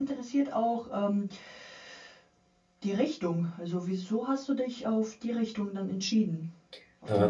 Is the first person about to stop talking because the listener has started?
Yes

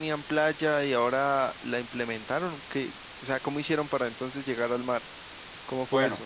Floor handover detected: Yes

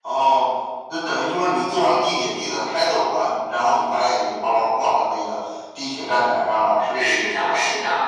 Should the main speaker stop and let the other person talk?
Yes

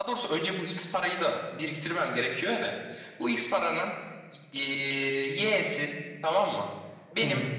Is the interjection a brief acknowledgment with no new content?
Yes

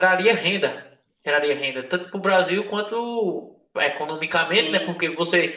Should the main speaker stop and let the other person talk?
No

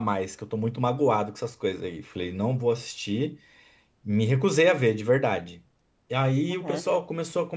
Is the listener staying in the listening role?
Yes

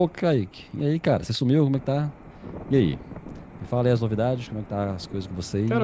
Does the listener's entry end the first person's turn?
Yes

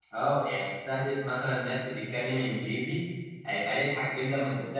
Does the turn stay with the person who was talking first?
Yes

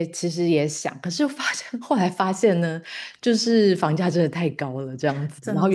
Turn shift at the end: No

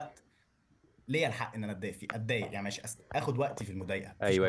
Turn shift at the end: Yes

